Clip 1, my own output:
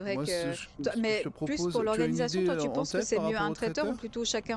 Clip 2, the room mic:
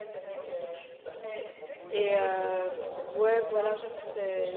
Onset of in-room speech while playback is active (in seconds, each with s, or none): 1.9 s